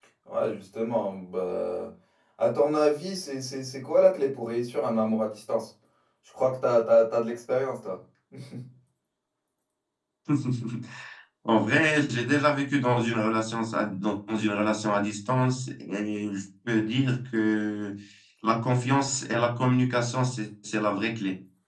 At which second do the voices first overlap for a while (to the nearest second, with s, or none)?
none